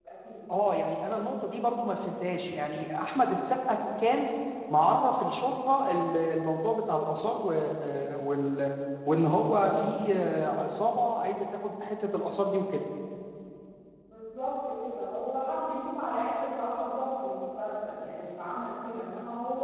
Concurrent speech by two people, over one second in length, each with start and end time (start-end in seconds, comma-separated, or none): none